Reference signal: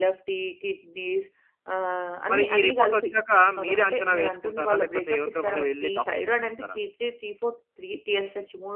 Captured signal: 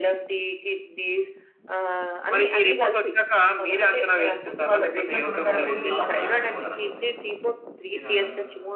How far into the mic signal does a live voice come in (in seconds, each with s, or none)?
5.1 s